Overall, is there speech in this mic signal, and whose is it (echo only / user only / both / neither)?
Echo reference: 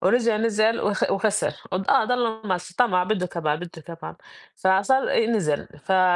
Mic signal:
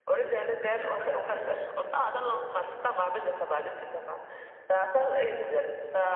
echo only